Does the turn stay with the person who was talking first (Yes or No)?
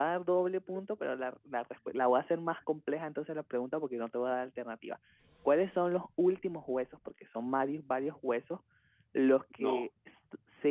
Yes